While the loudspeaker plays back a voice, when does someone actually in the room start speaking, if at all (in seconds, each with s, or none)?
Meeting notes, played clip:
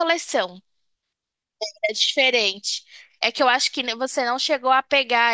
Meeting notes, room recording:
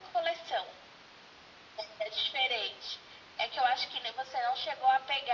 none